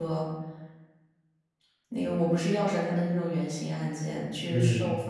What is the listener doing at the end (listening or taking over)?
listening